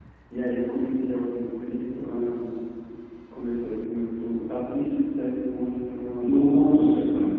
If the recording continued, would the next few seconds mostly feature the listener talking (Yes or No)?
Yes